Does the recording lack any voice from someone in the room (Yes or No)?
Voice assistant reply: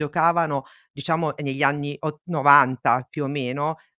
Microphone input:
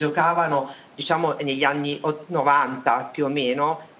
Yes